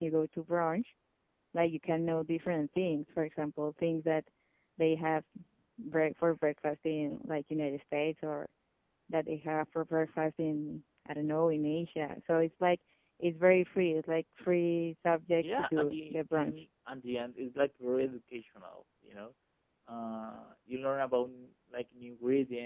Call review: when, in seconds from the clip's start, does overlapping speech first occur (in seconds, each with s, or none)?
15.3 s